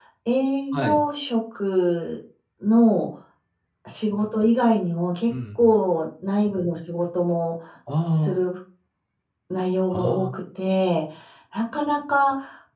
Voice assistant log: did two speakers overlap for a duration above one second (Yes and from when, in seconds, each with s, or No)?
No